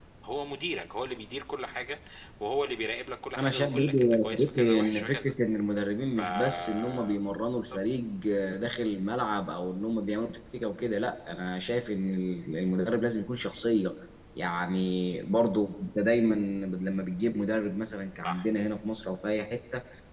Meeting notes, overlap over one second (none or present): present